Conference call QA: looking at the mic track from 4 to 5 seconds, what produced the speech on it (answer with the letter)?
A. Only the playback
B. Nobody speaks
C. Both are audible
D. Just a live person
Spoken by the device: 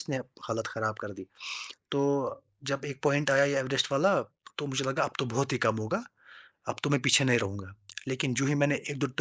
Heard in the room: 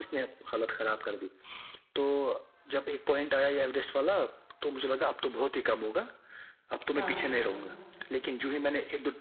A